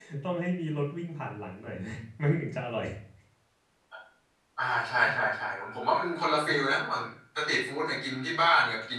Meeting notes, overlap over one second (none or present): none